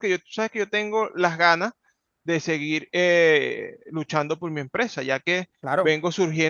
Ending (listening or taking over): listening